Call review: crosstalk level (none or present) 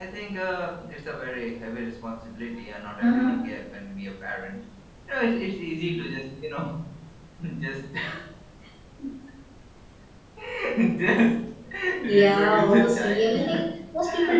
present